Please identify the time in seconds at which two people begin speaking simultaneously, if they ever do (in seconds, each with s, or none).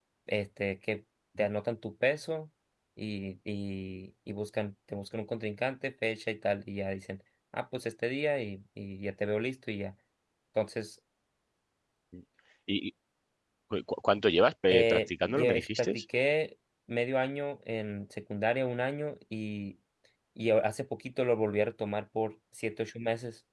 14.7 s